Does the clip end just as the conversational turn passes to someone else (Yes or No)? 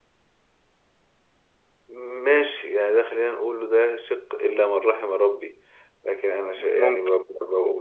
No